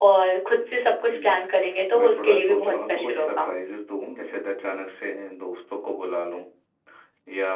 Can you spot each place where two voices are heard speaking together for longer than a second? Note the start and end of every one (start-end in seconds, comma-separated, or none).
2.0-3.5